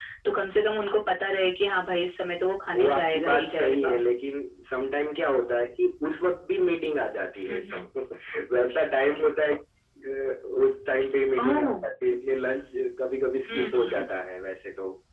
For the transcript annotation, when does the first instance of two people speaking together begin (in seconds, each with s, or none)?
2.7 s